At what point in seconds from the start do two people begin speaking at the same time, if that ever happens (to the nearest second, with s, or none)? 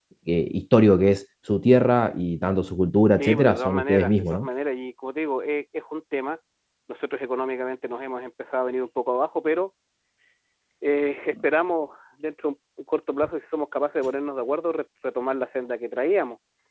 3 s